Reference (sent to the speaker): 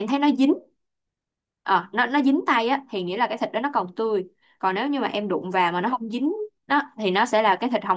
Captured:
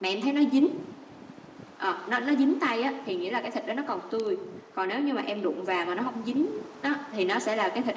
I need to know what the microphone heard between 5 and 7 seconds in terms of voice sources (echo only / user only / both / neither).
echo only